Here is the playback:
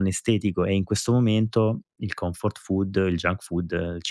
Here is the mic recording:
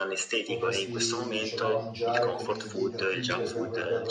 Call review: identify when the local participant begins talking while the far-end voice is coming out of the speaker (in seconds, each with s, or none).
0.4 s